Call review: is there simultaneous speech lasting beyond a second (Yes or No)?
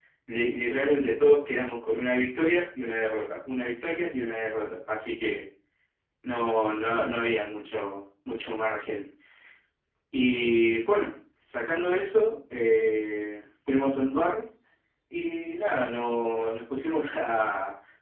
No